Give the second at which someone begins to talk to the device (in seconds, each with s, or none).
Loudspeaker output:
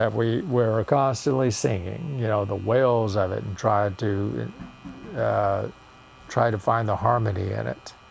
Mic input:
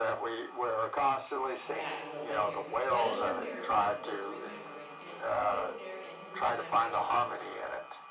1.6 s